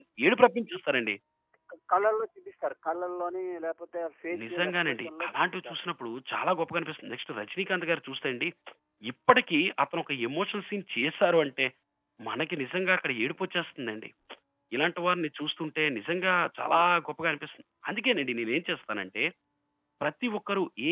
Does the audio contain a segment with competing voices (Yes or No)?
Yes